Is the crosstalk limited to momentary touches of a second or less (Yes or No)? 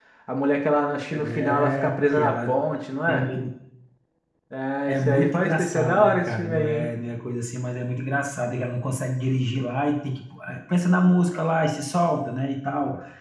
No